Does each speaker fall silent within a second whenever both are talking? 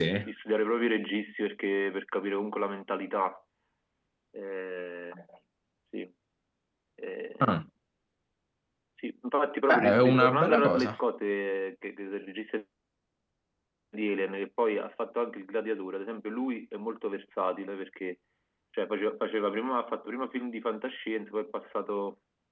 No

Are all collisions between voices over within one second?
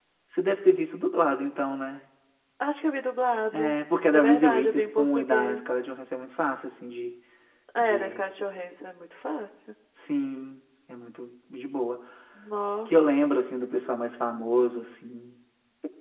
No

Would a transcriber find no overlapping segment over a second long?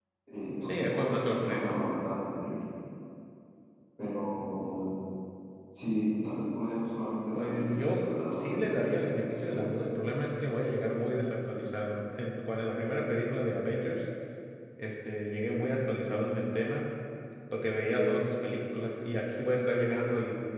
No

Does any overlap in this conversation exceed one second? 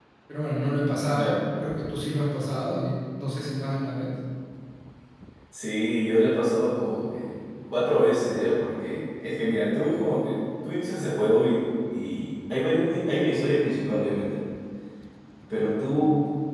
No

